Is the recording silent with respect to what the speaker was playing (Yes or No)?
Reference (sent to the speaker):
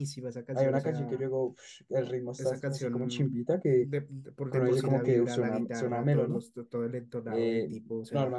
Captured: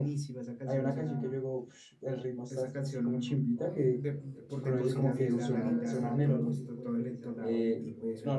No